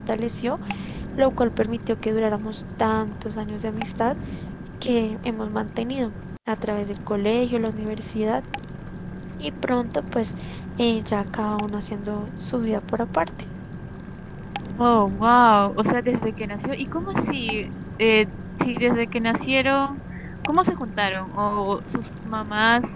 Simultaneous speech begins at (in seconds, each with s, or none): none